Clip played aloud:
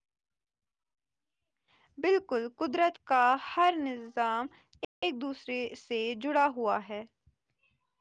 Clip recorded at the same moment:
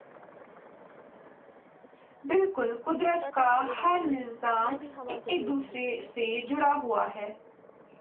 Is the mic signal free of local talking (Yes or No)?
No